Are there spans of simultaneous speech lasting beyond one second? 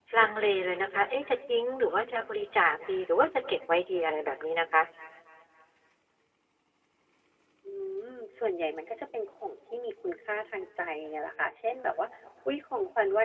No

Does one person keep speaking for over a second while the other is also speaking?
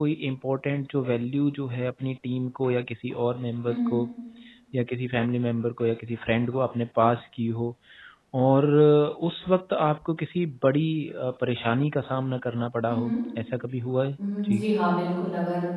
No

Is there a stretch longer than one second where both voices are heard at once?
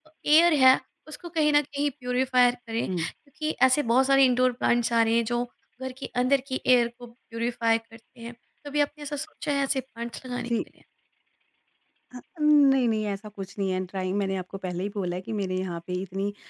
No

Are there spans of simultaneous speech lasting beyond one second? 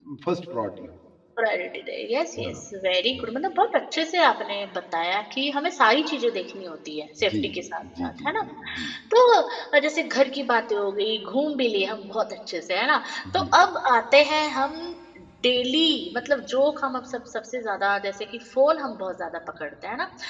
No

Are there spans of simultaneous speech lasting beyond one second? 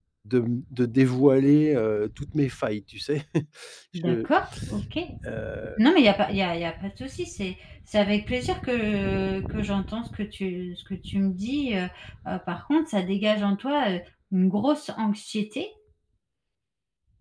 No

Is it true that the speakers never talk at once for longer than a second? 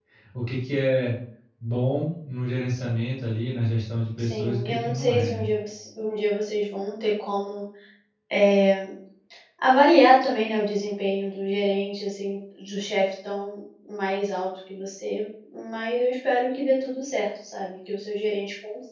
No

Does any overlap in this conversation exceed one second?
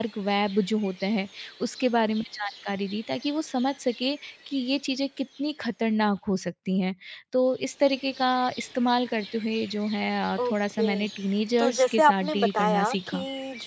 Yes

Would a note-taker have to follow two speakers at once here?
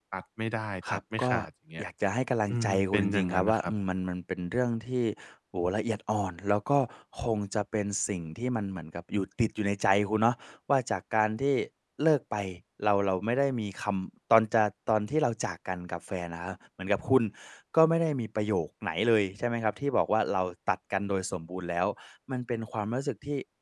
Yes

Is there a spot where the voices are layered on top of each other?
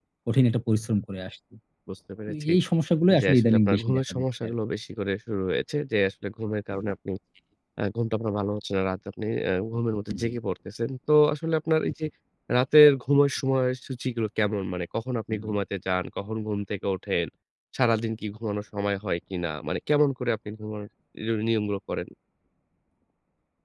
Yes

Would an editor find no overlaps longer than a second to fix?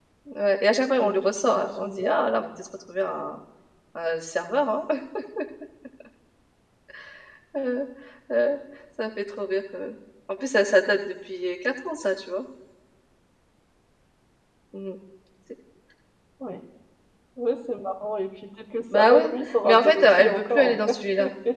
No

